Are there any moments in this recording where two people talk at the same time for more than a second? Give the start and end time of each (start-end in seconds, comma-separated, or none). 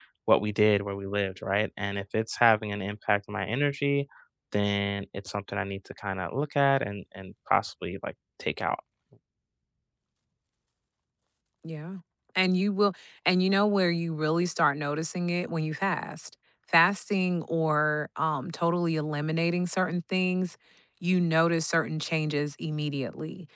none